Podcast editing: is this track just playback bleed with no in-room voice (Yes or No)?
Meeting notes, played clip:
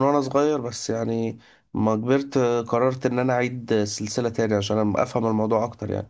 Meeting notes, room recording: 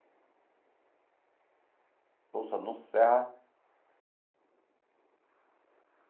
No